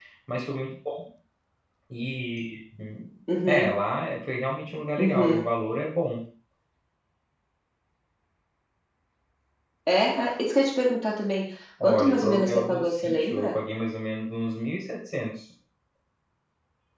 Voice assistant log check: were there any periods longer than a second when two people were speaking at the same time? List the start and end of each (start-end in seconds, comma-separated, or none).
11.8-13.6